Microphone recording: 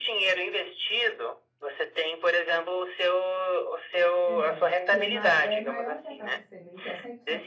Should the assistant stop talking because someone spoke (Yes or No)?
Yes